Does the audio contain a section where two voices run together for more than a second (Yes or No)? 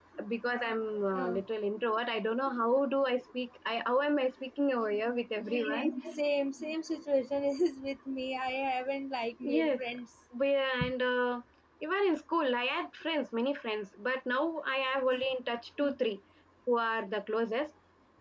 No